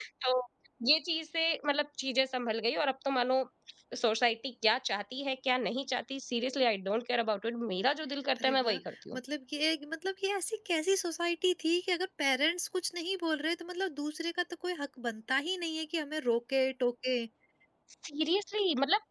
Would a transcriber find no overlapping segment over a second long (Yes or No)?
Yes